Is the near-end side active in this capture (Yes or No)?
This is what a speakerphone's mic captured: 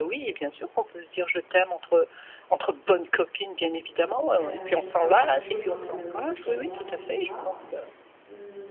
Yes